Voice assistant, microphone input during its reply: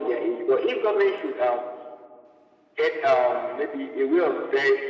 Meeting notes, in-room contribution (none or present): none